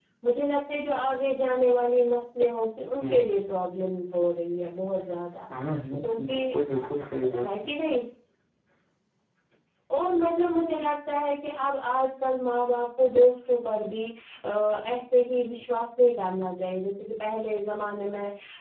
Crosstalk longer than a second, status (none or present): none